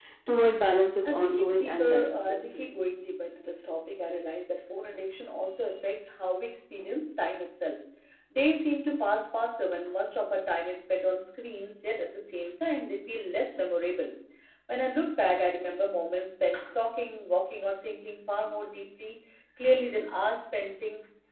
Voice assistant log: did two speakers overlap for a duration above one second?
Yes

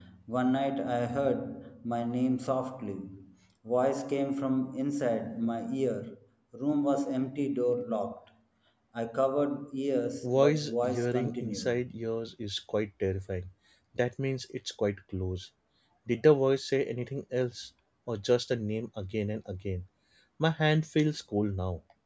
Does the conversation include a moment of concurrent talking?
Yes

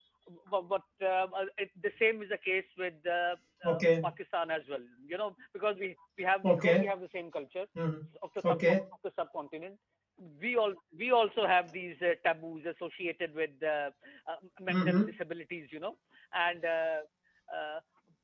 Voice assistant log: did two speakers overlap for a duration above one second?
No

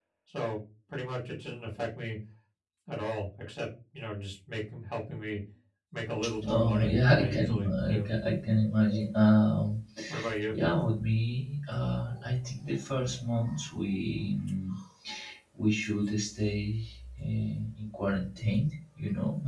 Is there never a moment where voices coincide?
No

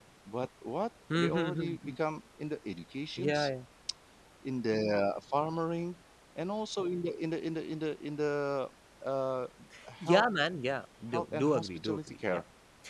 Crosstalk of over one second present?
Yes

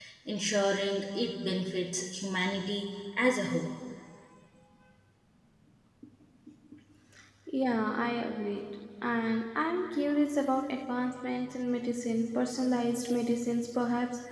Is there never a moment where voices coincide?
Yes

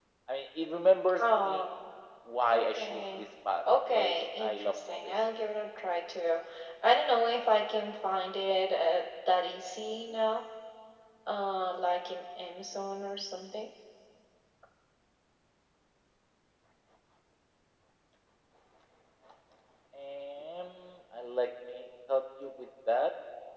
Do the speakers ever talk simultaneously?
Yes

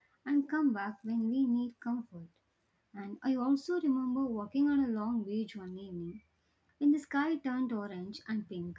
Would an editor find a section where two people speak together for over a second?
No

